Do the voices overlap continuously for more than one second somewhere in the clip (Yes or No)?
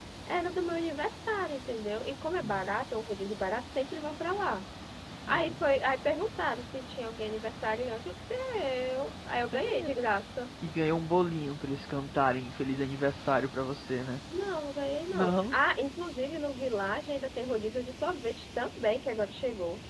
No